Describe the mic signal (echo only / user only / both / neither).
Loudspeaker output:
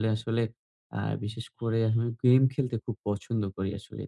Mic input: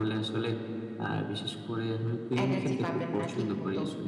both